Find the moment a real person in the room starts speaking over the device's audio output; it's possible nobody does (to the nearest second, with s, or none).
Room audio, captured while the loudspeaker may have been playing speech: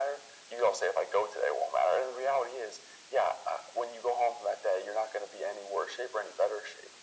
none